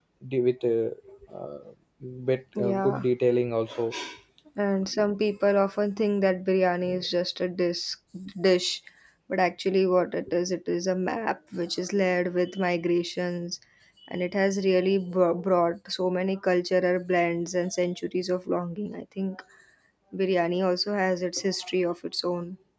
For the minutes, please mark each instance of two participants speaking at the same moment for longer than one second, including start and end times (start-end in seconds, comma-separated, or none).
none